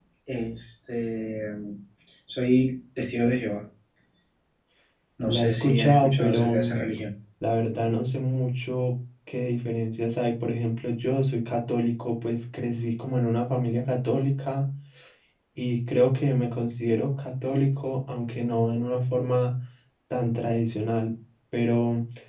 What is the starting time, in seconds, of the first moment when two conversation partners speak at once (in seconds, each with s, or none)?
5.2 s